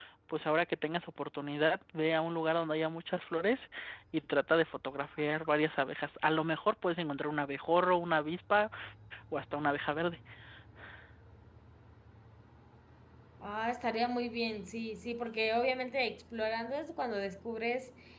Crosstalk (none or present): none